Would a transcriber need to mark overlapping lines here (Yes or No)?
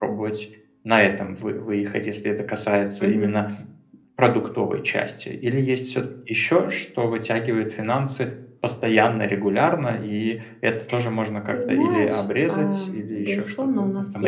Yes